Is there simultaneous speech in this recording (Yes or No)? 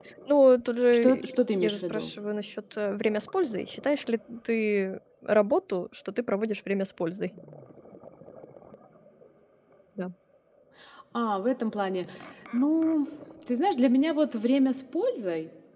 Yes